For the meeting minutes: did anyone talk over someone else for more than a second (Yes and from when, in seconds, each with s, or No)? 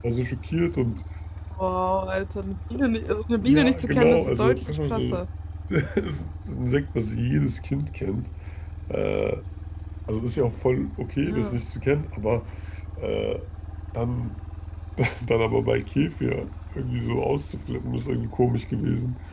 Yes, from 3.4 s